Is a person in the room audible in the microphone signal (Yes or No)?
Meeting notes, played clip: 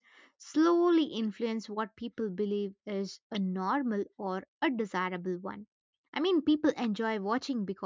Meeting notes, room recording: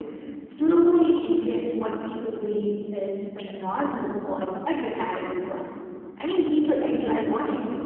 No